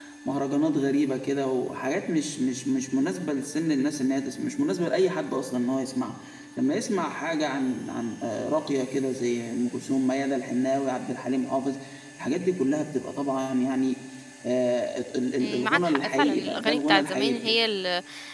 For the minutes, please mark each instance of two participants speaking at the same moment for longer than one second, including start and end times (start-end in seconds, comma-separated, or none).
15.4-17.5